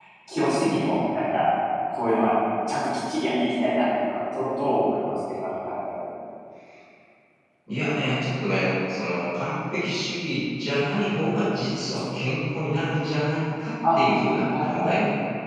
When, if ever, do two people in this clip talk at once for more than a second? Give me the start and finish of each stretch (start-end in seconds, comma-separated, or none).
none